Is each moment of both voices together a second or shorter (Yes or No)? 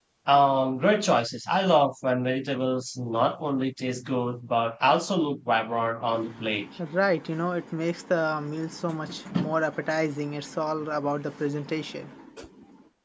Yes